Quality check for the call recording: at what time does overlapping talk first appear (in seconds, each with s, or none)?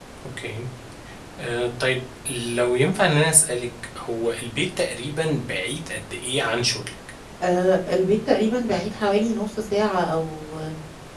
none